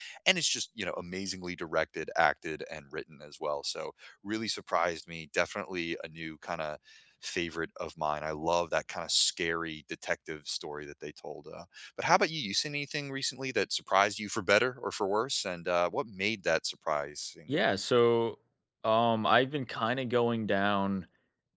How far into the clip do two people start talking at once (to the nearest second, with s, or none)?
none